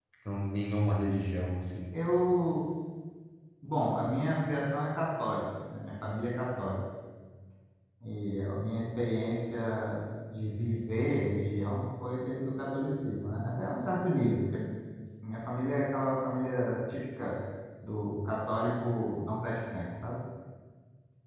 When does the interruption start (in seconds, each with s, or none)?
none